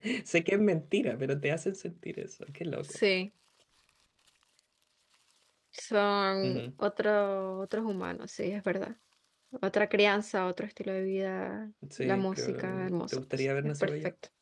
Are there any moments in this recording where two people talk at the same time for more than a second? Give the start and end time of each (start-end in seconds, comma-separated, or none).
12.0-13.9